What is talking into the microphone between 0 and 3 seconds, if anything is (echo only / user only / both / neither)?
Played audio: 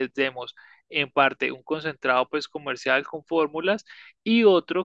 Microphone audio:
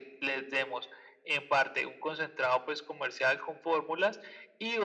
echo only